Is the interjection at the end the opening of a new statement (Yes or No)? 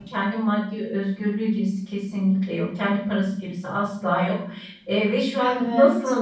No